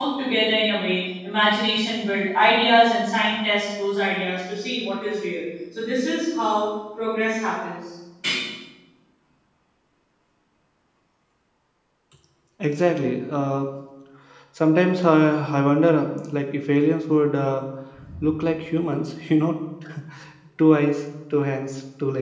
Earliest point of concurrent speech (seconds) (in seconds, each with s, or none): none